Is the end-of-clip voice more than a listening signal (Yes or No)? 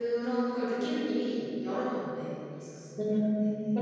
Yes